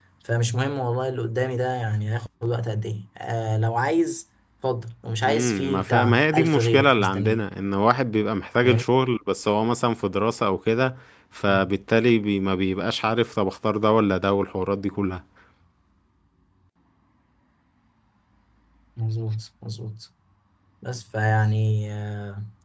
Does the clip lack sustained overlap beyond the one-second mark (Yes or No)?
No